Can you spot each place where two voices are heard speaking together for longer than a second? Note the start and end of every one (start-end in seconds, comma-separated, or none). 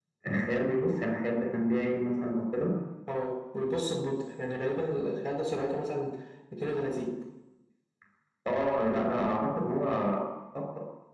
none